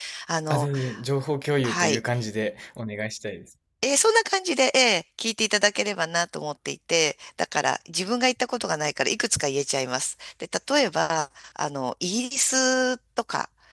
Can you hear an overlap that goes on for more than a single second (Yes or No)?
No